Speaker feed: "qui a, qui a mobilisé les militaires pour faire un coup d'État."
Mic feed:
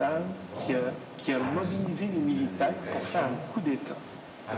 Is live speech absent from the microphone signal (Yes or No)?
No